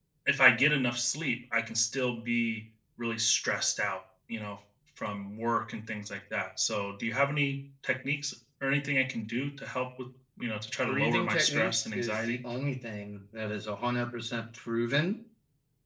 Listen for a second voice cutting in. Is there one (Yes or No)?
Yes